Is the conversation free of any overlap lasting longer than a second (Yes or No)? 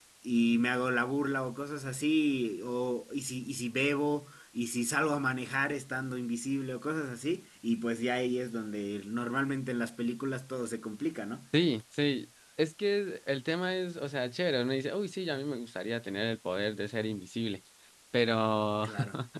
Yes